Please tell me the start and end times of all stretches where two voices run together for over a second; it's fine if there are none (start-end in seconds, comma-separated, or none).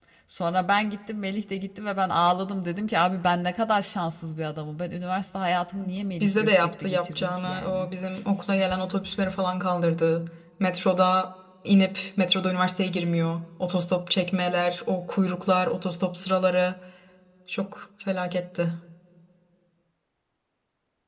6.2-7.9